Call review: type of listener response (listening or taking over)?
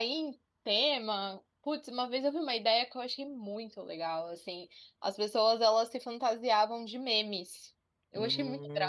taking over